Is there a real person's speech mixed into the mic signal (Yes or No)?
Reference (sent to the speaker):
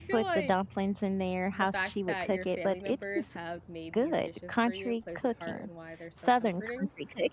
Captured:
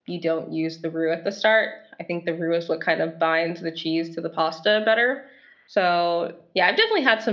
Yes